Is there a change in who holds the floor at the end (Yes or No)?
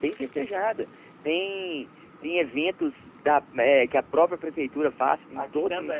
No